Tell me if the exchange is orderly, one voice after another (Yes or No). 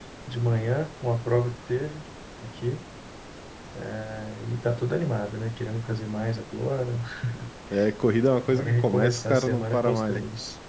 No